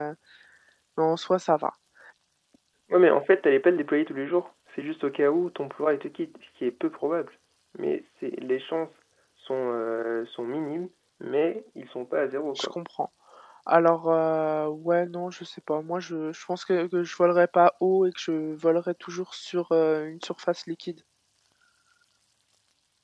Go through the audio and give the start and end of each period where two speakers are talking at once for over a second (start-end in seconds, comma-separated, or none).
none